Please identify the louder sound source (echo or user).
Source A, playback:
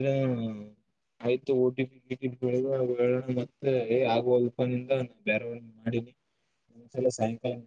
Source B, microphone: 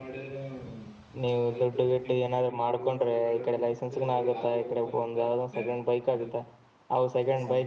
user